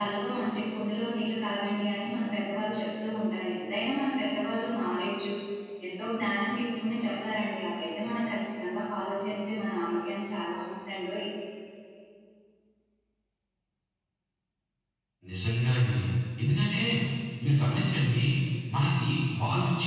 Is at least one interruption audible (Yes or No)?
No